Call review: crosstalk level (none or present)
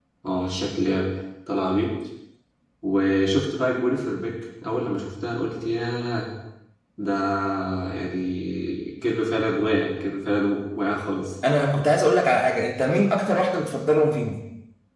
none